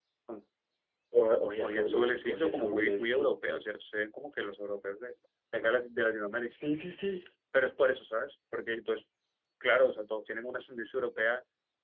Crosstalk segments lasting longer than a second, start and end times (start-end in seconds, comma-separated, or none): 1.6-3.3